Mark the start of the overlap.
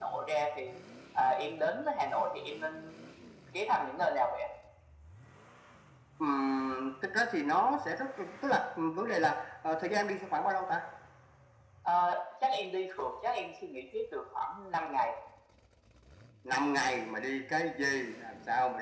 none

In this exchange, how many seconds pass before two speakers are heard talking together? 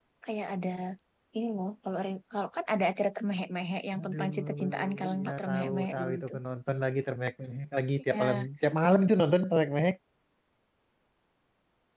4 s

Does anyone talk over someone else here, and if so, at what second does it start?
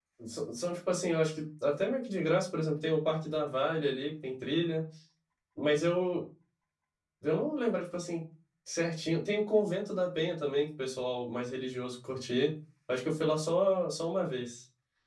none

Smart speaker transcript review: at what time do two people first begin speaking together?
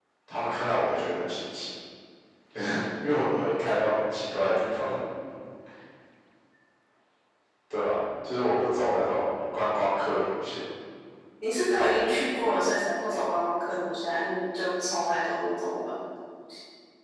none

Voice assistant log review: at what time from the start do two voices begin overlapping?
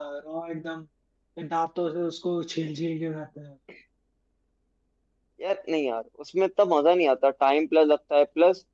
none

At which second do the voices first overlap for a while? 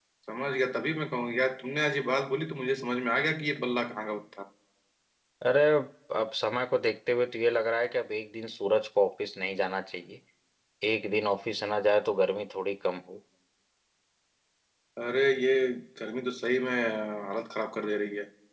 none

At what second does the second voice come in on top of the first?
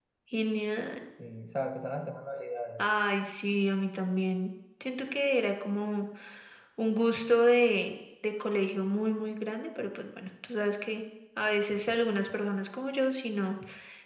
none

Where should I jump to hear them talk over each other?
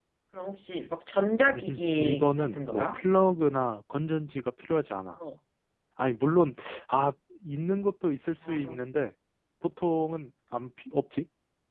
2 s

